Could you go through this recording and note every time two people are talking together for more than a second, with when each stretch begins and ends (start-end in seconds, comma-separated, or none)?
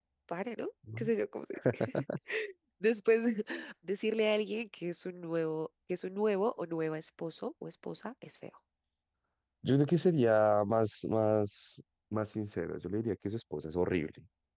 none